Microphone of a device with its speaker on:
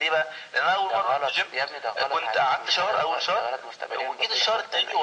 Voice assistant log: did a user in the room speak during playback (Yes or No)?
No